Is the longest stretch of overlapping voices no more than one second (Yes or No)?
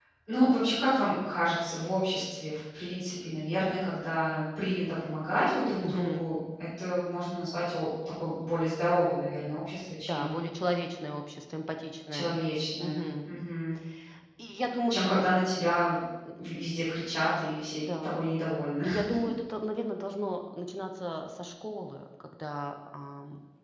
Yes